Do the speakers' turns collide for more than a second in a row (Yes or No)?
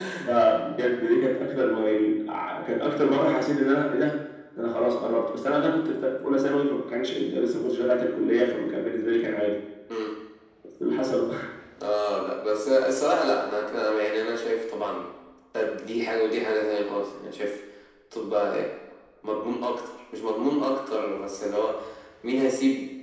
No